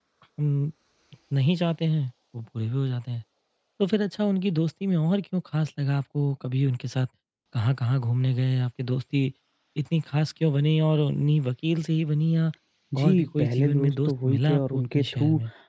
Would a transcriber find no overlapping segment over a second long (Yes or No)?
No